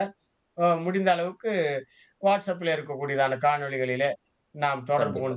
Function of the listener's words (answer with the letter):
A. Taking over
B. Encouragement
B